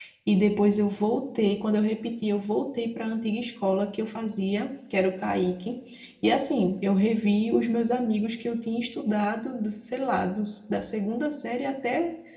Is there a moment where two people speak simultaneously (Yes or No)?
No